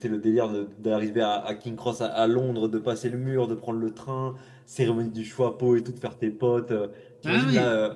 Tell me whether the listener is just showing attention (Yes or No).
Yes